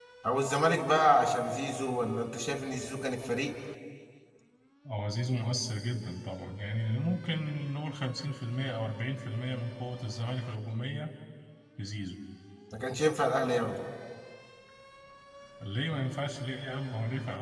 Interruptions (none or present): none